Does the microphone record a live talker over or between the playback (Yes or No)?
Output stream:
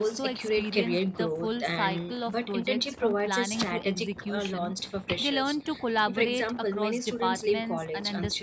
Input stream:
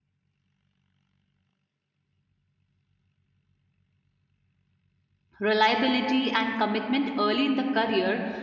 Yes